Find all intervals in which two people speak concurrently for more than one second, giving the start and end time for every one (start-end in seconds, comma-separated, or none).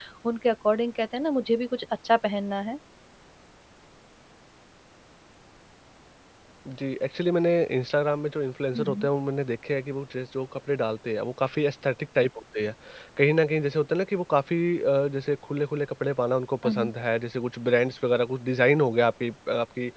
none